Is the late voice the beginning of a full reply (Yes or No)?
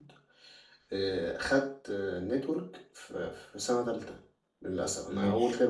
No